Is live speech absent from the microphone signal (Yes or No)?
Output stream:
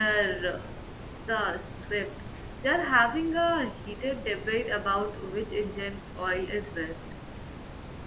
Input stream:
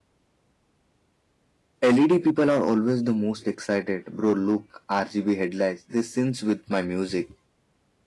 No